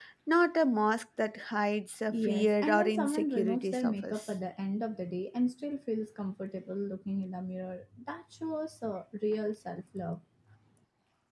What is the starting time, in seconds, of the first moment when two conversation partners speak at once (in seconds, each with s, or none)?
2.1 s